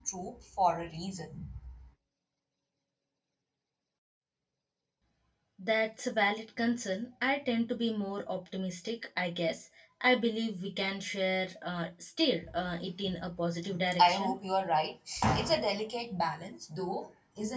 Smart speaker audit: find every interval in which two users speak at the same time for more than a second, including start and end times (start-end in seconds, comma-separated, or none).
none